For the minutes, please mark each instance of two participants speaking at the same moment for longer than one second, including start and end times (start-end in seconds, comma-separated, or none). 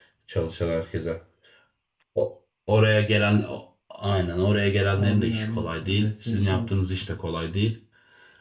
4.9-6.7